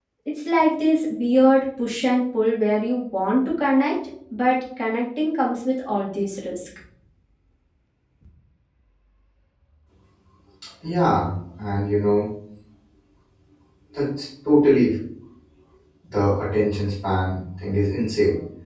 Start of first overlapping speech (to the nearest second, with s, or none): none